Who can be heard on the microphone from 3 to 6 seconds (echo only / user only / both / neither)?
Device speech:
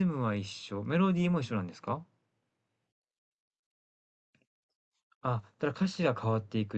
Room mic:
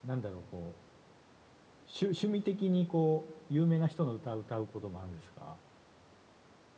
user only